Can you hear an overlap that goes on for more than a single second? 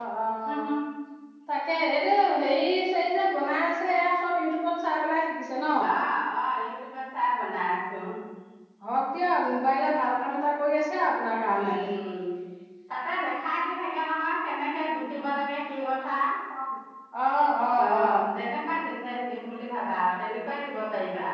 No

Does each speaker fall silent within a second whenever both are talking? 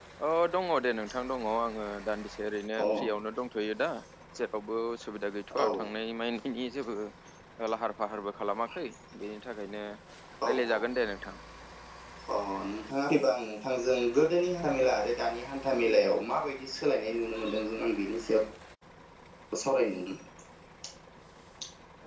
Yes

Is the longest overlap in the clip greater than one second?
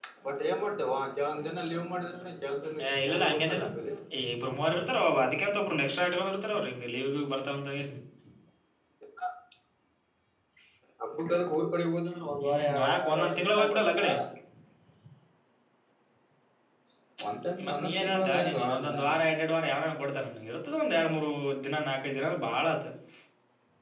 Yes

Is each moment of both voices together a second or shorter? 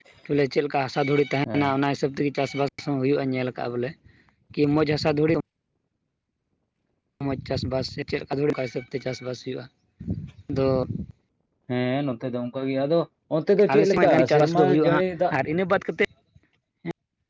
No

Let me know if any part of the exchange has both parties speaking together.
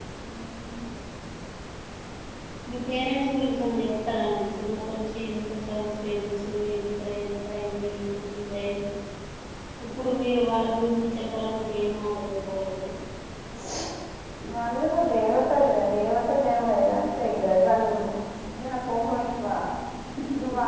No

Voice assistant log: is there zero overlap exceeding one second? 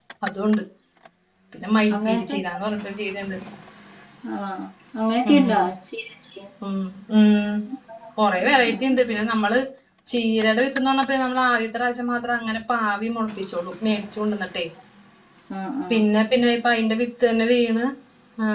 Yes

